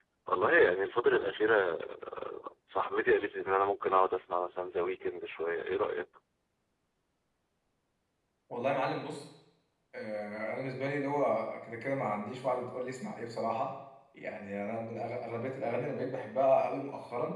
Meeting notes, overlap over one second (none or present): none